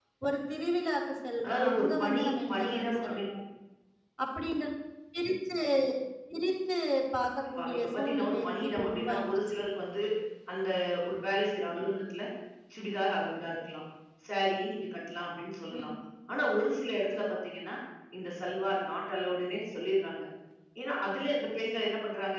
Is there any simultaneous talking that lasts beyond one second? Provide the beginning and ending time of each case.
1.4-3.3, 7.6-9.6

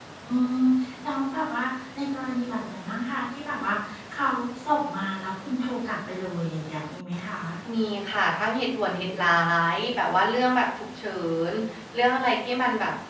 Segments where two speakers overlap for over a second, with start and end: none

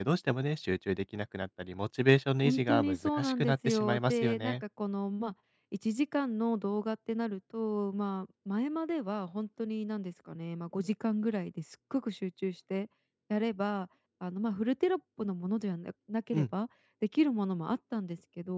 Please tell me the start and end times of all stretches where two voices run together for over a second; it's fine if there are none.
2.4-4.5

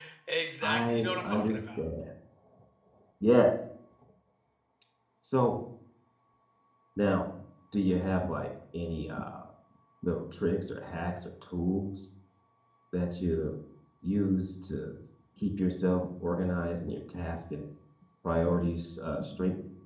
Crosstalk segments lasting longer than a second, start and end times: 0.6-1.8

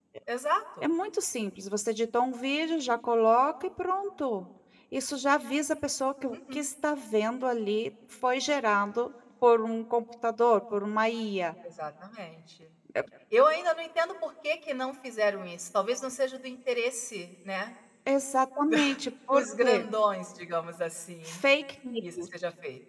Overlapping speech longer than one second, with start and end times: none

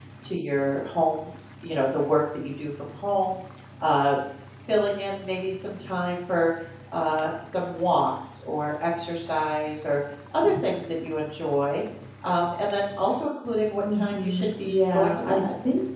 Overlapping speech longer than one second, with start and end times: 13.9-15.4

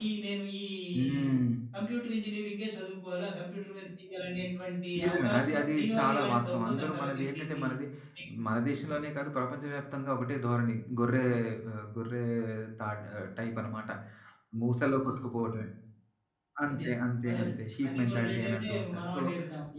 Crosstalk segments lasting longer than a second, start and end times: 5.0-7.6, 17.3-19.2

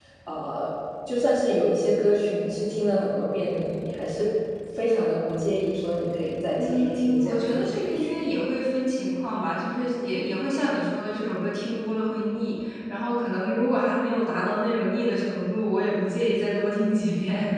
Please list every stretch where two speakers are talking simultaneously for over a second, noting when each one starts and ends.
6.6-8.1

